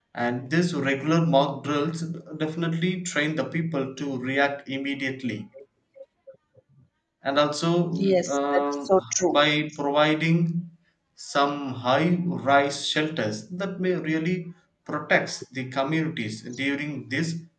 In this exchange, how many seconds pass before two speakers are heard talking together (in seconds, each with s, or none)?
8.0 s